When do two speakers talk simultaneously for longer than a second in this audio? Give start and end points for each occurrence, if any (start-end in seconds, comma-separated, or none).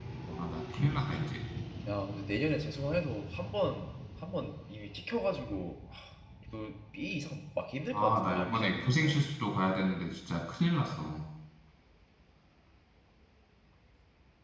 7.9-9.2